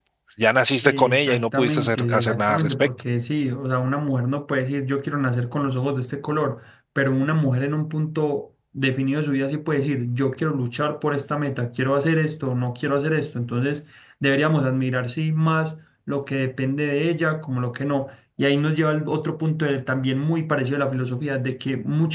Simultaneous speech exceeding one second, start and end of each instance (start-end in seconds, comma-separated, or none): 0.8-2.9